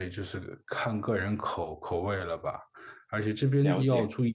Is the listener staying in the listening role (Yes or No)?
Yes